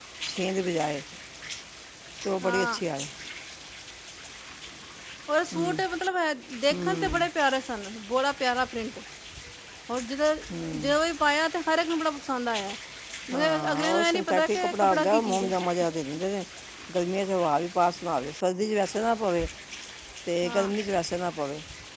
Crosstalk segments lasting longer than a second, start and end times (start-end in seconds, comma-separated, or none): 13.3-15.5